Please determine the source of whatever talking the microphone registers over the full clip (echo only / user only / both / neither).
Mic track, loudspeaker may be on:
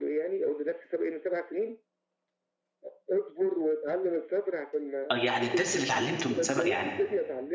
both